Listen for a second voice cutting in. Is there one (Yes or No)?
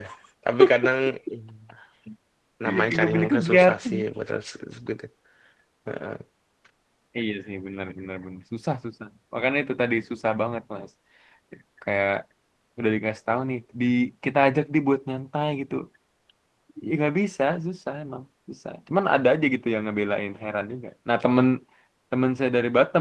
Yes